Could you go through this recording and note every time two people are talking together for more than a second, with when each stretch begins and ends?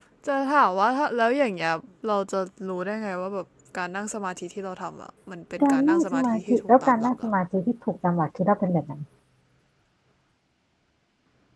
5.6-7.3

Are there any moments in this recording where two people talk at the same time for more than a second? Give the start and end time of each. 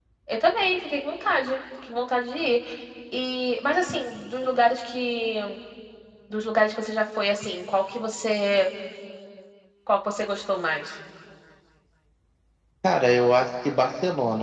none

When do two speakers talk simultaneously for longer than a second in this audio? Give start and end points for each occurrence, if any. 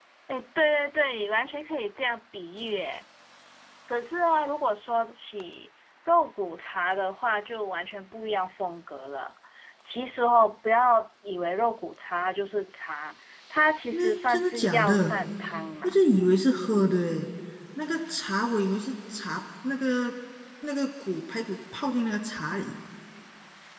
13.9-15.1

